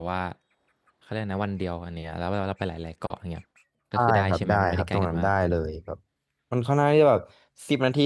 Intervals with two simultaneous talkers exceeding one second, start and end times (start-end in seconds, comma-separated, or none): 3.9-5.3